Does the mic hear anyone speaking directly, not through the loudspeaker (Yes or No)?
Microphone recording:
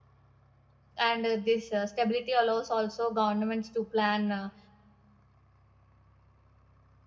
Yes